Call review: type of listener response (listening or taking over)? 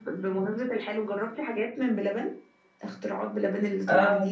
taking over